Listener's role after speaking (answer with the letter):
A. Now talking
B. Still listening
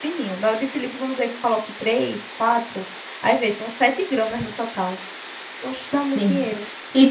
A